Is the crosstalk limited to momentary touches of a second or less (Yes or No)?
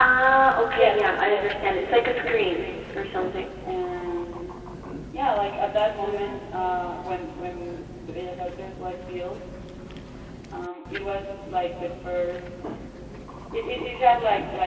No